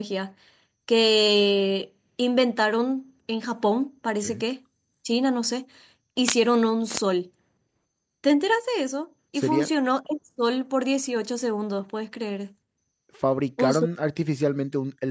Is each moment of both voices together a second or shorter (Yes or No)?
Yes